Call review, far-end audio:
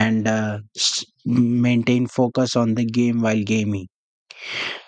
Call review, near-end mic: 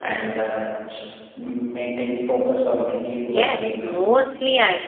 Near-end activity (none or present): present